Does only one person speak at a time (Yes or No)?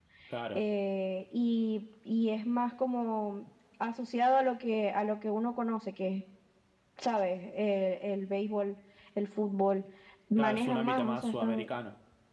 No